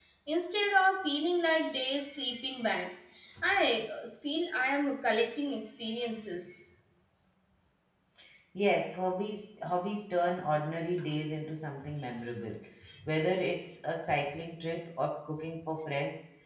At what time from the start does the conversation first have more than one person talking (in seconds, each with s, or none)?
none